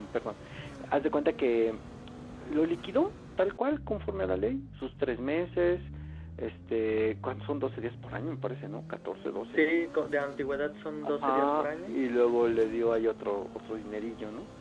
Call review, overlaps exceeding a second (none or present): present